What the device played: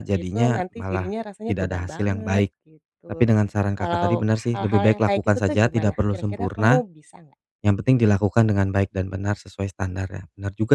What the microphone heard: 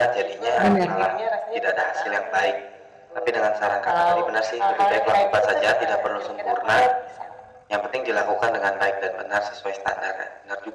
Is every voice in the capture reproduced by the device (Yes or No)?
No